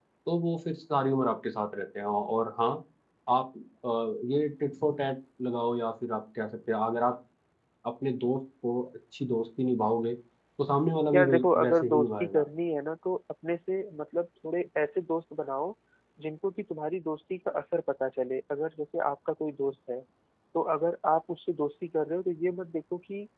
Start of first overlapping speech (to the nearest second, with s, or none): 11 s